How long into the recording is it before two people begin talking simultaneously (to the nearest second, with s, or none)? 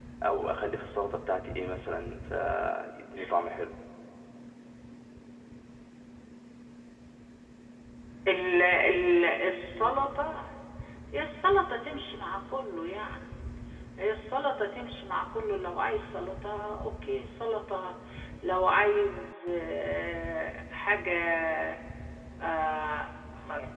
none